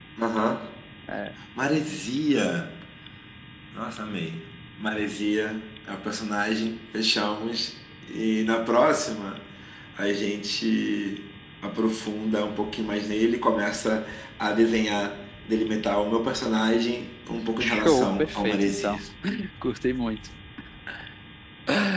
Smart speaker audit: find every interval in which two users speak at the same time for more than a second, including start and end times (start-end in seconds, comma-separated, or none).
17.6-19.0